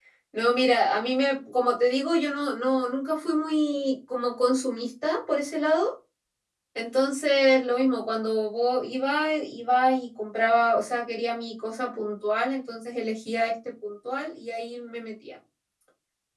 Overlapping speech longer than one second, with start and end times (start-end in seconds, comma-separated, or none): none